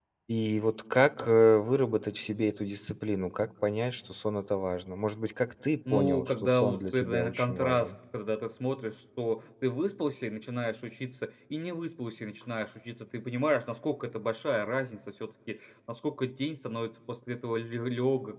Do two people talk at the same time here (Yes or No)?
Yes